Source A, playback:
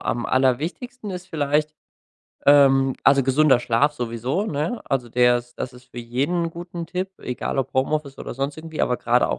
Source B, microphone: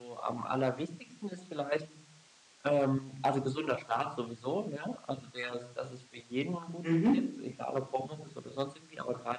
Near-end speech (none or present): present